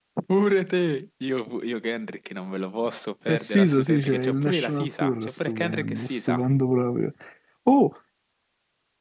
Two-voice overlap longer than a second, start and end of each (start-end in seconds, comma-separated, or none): 3.3-6.4